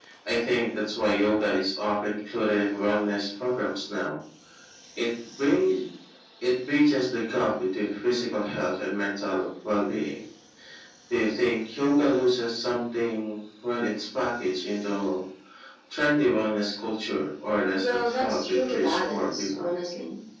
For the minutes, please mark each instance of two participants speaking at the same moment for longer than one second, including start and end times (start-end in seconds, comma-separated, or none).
17.8-19.7